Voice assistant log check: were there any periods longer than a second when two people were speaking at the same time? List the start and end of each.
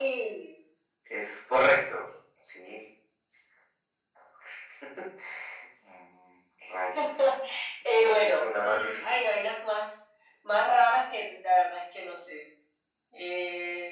8.0-9.2

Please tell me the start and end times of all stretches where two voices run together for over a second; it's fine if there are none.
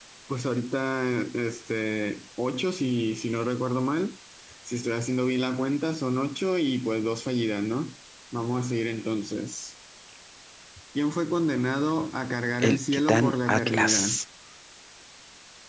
12.6-14.2

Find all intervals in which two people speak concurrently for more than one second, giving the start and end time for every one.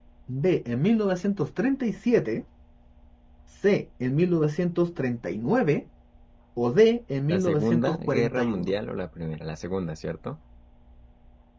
7.3-8.7

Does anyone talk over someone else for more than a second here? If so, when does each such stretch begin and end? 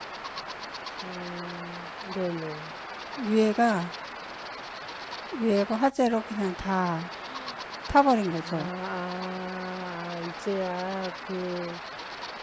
none

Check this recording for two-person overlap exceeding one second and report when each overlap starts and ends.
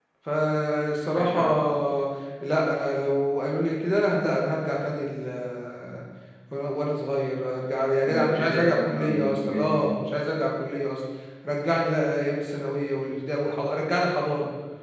8.1-9.9

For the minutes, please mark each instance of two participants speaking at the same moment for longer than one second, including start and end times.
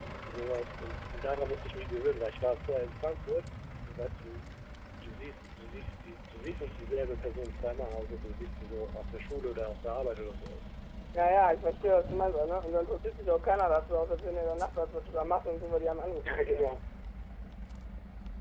none

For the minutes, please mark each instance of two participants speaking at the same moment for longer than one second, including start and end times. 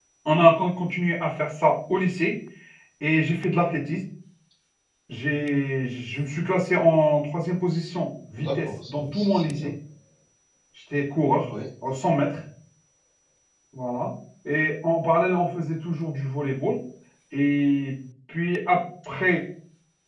8.4-9.7

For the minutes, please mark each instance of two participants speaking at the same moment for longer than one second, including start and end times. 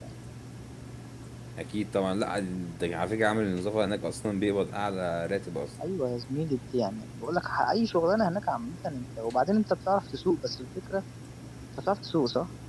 none

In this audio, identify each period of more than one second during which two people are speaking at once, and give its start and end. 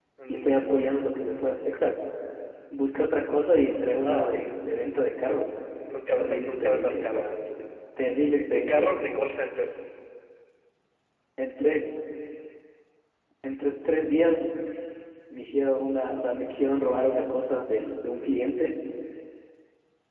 6.2-7.4

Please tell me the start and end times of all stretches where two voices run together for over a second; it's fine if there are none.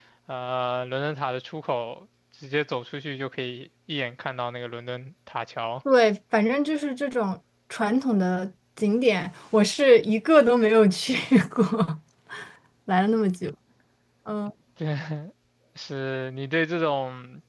none

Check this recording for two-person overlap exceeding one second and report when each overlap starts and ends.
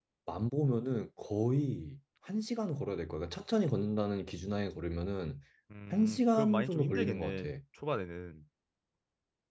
5.9-7.5

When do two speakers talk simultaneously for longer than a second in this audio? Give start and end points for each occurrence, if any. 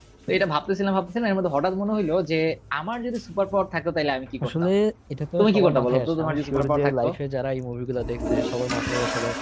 5.4-7.1

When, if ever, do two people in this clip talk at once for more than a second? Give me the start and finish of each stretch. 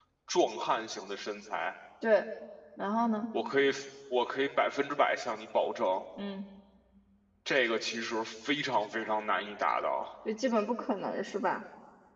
none

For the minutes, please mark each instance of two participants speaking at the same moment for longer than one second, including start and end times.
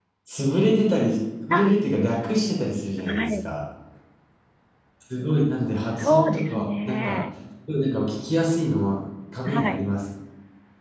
5.9-7.2

